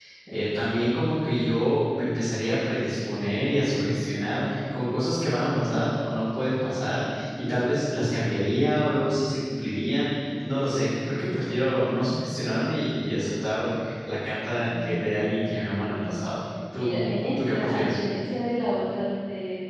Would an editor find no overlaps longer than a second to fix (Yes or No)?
No